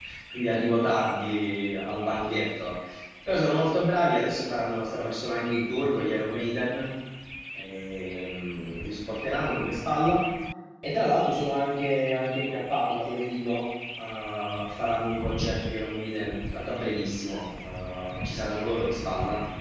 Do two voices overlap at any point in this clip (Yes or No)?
No